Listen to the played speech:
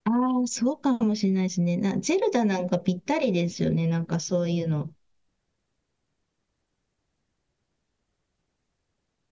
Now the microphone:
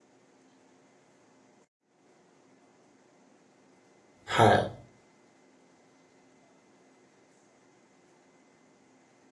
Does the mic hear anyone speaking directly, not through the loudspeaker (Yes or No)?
Yes